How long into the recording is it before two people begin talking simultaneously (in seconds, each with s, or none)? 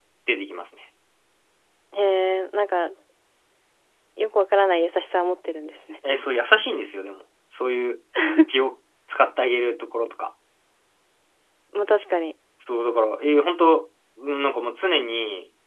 none